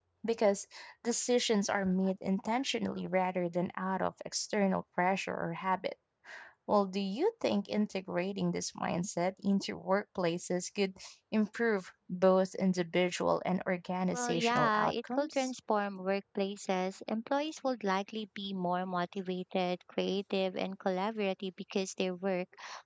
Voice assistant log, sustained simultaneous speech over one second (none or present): present